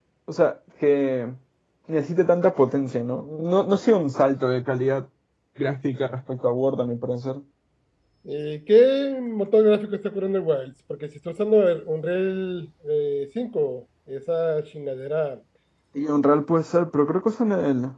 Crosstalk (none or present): none